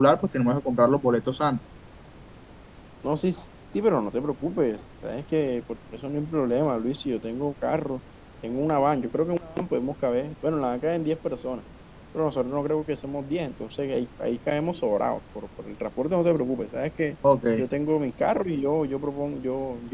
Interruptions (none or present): none